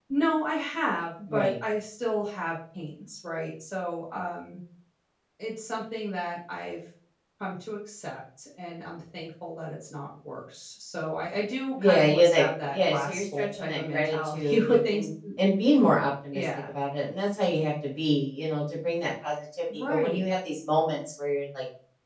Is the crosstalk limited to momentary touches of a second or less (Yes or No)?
No